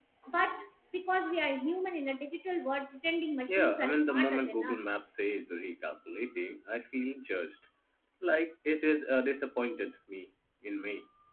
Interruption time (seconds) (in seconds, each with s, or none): 3.4 s